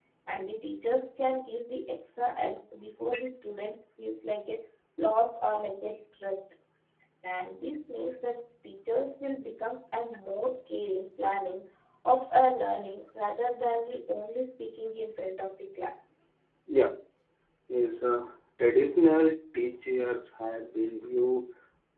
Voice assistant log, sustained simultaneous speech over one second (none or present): none